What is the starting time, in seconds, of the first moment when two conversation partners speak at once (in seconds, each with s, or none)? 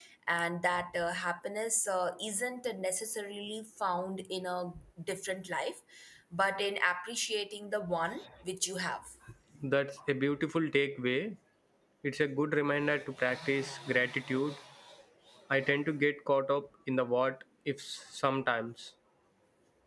none